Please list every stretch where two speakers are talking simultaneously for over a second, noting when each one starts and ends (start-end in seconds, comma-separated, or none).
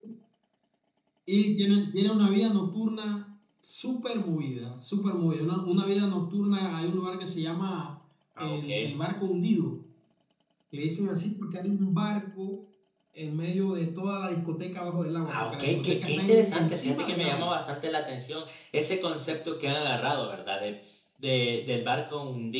15.2-17.5